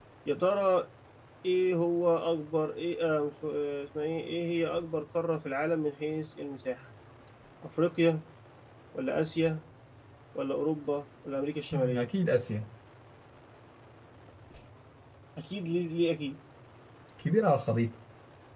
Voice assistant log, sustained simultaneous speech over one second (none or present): none